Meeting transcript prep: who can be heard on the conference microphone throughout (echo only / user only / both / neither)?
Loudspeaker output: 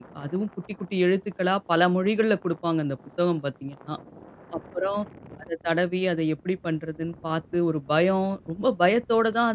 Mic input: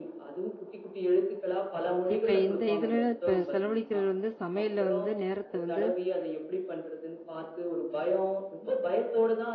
both